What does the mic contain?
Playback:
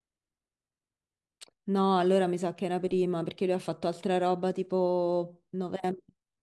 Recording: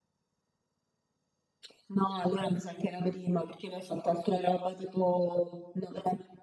echo only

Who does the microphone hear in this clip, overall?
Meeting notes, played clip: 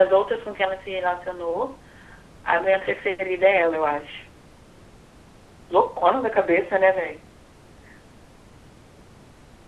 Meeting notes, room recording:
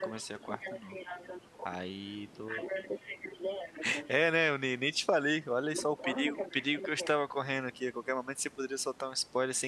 both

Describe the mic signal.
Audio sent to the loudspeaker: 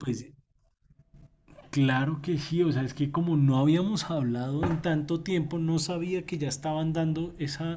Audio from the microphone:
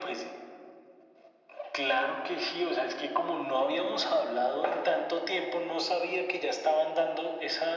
echo only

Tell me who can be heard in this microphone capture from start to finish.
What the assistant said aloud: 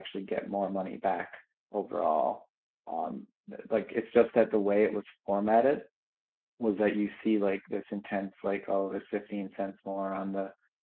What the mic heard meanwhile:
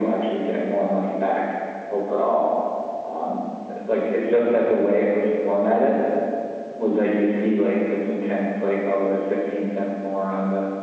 echo only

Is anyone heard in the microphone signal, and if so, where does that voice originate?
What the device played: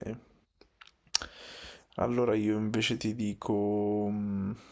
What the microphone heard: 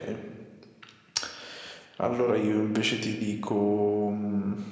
echo only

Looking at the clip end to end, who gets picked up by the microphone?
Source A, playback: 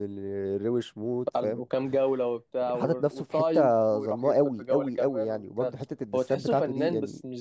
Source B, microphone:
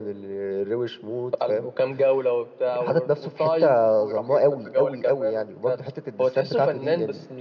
echo only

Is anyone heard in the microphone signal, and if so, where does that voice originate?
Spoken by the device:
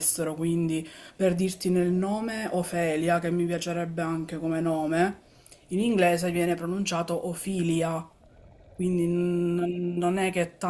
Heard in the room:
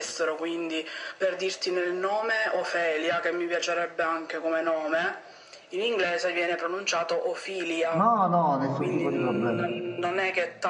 both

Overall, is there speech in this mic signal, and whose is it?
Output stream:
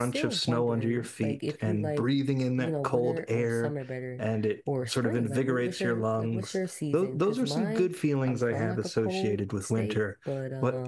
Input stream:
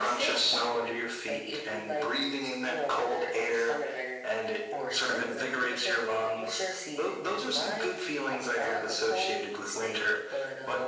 echo only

